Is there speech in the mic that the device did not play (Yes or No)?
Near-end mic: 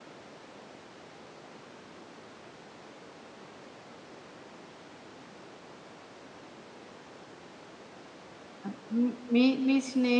Yes